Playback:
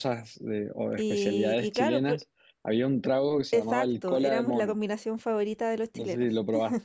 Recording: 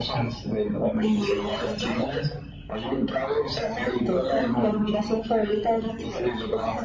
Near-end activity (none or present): none